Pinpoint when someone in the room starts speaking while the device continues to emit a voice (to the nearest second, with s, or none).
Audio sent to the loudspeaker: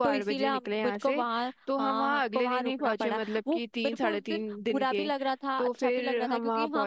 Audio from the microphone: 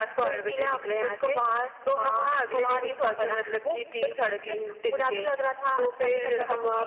none